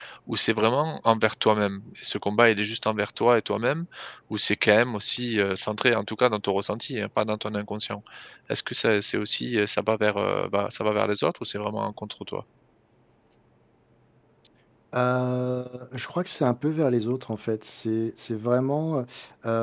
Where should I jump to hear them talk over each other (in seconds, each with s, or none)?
none